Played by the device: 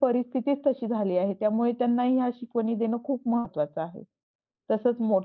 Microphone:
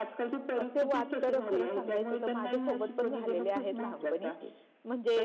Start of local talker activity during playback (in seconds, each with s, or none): 0.6 s